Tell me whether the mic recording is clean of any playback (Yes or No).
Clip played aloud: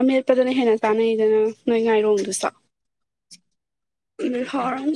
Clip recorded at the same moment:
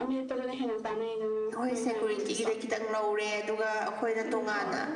No